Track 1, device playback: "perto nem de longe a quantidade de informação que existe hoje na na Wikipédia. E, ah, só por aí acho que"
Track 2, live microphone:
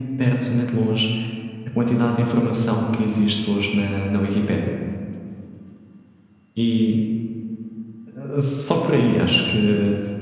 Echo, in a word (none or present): present